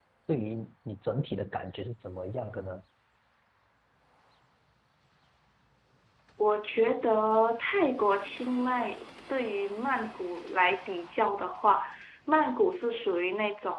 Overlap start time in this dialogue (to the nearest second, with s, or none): none